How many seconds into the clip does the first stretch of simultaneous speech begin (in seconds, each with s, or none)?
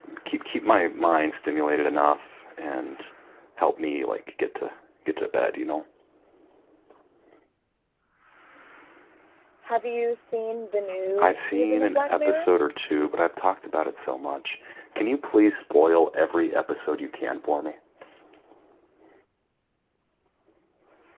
11.2 s